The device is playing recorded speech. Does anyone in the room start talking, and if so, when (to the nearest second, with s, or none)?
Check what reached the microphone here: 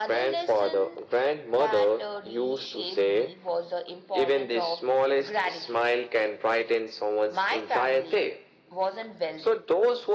none